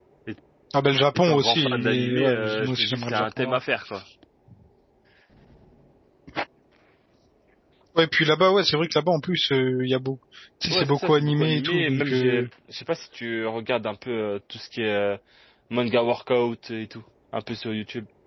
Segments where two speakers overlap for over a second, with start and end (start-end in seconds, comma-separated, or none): 1.1-3.6, 10.7-12.5